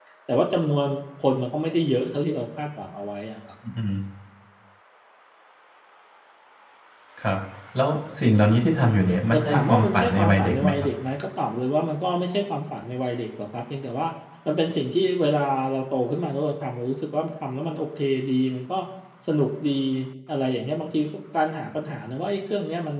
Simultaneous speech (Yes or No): Yes